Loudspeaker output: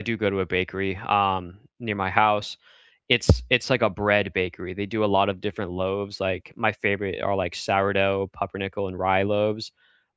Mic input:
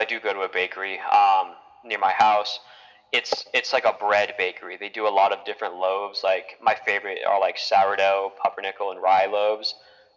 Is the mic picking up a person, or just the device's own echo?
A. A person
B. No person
B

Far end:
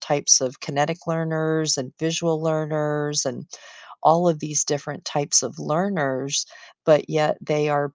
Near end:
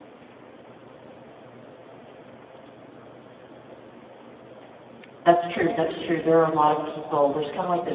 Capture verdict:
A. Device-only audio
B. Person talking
B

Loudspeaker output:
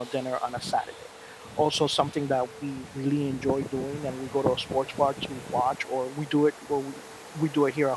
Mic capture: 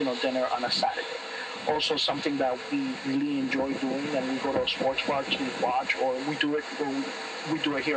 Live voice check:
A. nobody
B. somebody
A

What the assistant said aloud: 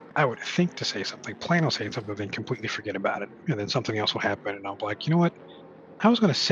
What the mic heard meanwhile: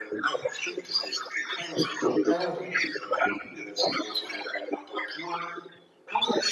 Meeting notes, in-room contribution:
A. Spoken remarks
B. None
A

